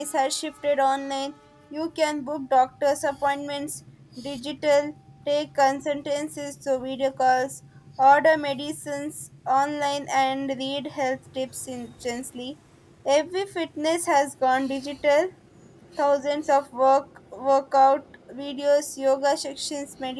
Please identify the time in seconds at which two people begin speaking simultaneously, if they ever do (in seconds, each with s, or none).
none